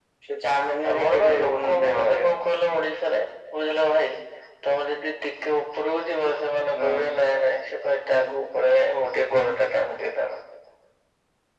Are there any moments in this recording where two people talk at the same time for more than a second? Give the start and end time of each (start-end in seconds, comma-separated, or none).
0.9-2.5